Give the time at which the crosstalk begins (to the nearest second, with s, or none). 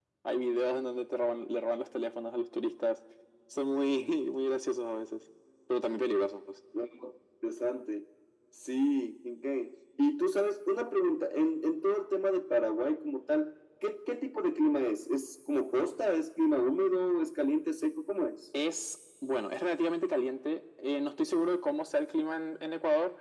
none